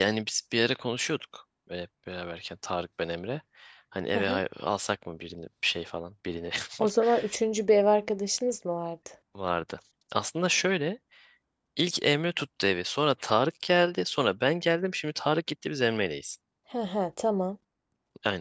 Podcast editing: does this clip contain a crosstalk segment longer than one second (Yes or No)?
No